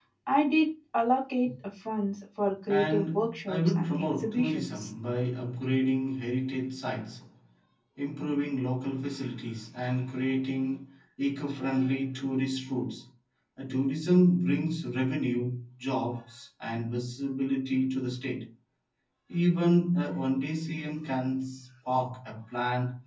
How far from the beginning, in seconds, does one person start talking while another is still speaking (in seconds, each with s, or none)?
2.7 s